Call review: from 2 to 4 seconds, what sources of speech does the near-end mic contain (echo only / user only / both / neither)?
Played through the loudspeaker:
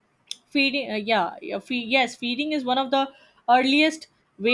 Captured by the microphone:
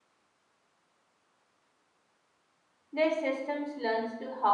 user only